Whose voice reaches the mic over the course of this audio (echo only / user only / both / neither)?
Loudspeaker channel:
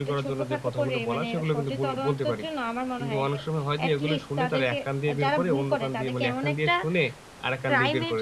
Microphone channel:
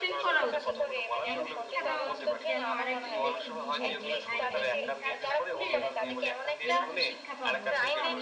both